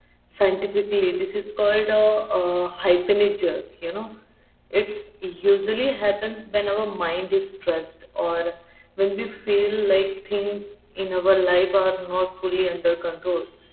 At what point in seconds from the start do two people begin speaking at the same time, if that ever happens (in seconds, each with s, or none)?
none